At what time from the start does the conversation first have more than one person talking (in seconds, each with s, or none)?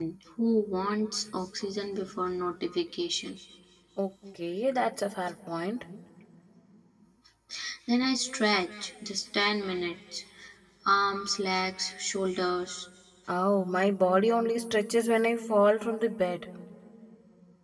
none